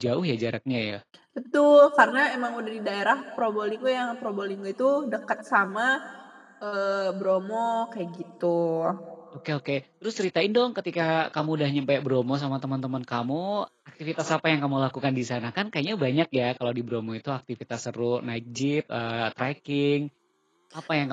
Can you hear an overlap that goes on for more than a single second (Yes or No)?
No